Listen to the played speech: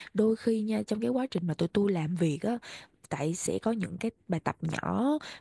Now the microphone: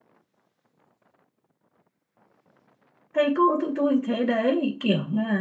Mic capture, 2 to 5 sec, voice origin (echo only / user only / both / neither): user only